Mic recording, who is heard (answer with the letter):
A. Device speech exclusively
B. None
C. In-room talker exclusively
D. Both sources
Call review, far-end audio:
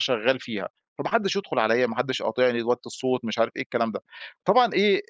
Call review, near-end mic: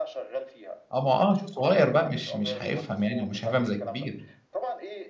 D